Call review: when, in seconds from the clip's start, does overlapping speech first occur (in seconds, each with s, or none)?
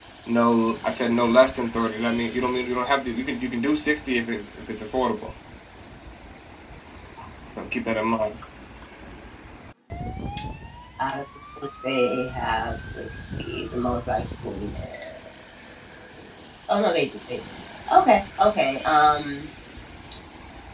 none